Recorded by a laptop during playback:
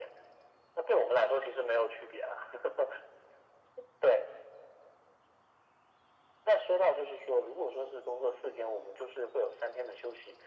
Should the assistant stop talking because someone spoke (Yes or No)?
No